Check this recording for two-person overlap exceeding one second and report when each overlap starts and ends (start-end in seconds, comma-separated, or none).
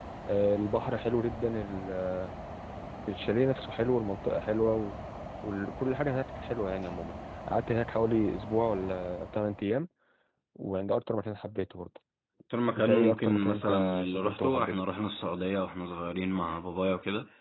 12.8-14.8